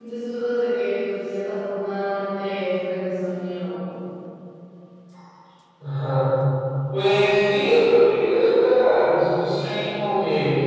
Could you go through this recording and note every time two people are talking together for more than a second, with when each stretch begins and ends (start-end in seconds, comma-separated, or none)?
none